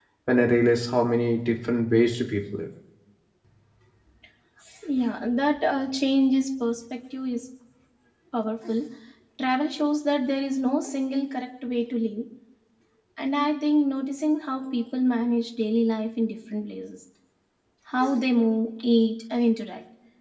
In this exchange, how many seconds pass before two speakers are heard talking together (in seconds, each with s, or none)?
none